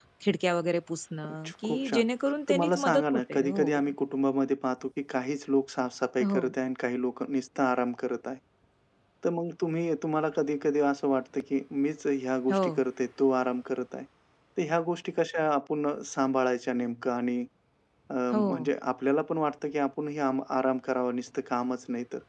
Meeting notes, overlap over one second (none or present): present